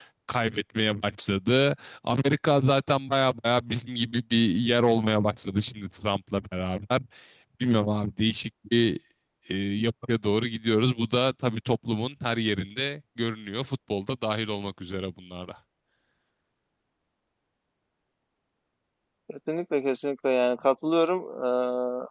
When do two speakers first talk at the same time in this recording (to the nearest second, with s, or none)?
none